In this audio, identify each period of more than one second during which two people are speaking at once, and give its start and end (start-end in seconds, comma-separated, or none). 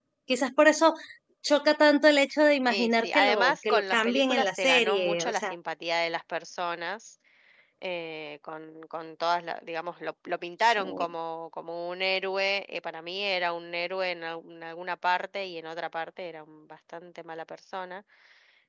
2.7-5.5